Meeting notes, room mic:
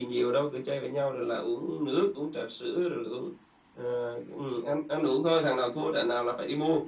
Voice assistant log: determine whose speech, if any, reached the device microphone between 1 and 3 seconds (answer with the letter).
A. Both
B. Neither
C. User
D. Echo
D